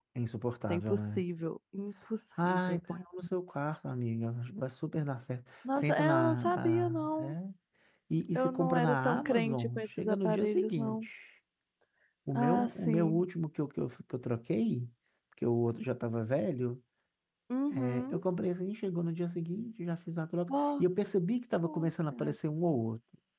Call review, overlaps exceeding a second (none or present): present